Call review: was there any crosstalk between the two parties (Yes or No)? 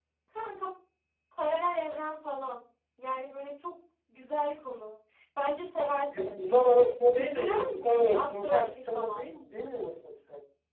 Yes